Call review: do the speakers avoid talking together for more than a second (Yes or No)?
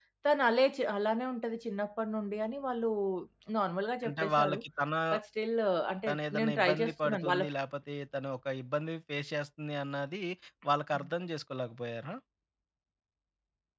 No